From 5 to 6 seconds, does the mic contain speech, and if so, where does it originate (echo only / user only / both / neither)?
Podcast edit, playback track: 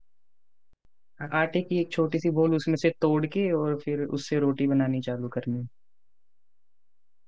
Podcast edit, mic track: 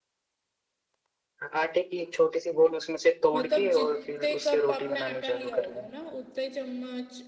both